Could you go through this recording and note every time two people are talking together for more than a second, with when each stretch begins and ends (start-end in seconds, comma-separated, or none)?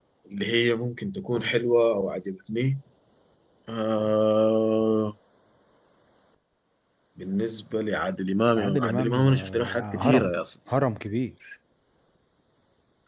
8.6-10.4